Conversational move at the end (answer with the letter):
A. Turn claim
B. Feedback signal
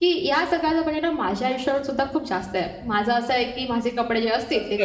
A